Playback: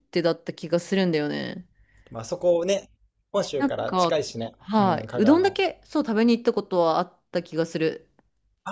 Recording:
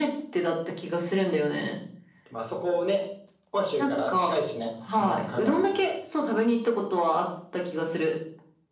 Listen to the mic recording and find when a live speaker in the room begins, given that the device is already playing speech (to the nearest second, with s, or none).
none